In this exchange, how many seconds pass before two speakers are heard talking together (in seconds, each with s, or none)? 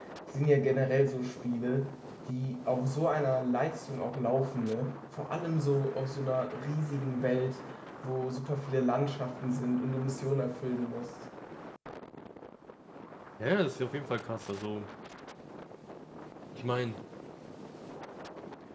none